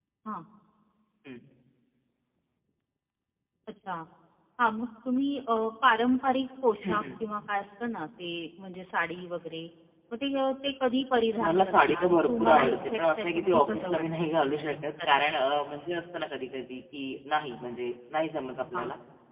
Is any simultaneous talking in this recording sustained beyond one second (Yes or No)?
Yes